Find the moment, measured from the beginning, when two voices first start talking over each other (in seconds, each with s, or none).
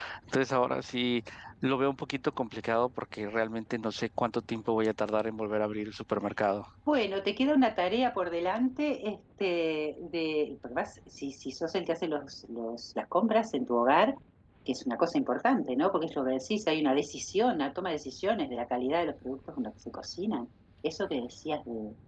none